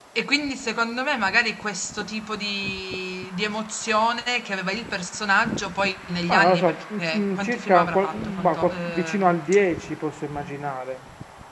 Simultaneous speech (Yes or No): Yes